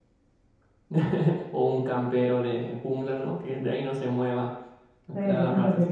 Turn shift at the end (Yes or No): Yes